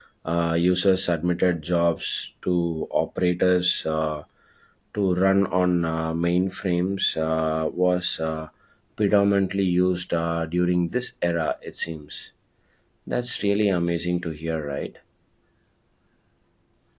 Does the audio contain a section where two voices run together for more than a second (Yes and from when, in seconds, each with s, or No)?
No